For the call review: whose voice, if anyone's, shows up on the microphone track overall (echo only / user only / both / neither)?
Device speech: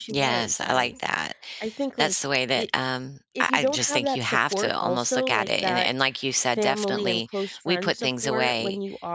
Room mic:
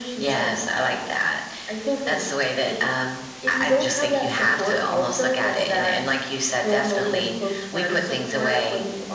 echo only